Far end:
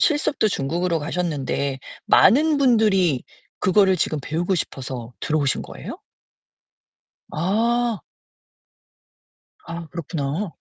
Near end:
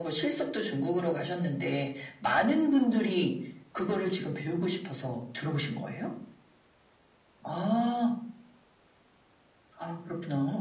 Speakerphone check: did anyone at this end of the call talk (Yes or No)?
No